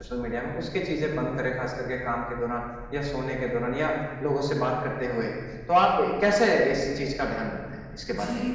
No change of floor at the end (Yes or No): No